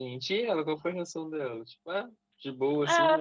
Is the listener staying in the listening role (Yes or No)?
No